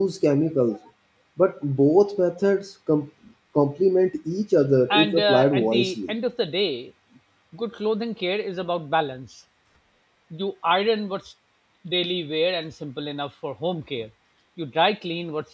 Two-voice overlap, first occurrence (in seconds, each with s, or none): 4.9 s